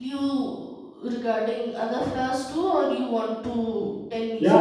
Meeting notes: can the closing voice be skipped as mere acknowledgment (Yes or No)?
No